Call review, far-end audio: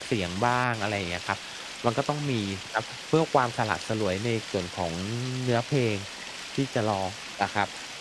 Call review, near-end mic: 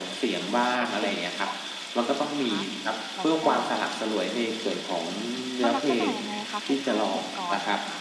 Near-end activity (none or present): present